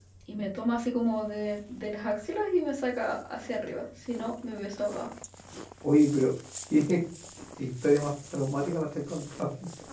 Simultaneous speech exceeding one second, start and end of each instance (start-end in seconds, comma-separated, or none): none